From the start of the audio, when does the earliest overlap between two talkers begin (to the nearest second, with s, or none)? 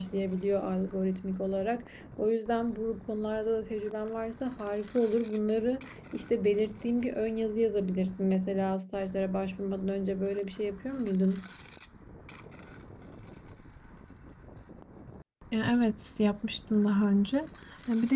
none